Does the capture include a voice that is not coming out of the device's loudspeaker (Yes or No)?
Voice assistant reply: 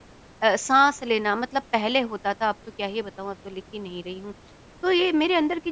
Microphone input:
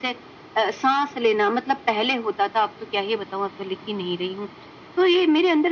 No